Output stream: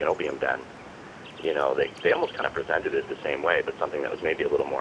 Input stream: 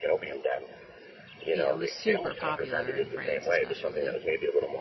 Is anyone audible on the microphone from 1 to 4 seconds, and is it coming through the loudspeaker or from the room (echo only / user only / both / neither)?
both